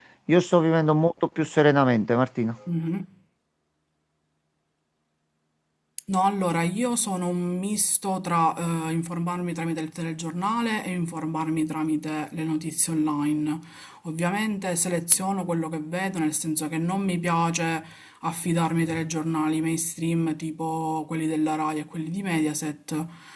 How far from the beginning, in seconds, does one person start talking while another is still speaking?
none

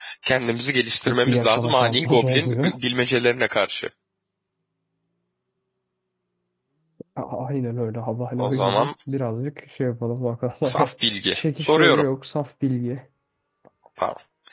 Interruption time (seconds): 1.1 s

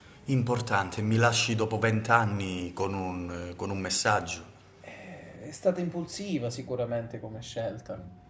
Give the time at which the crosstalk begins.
none

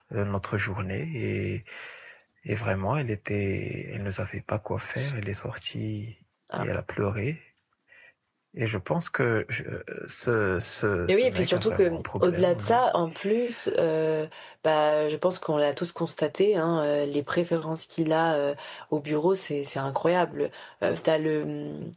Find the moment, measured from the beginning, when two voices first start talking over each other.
11.1 s

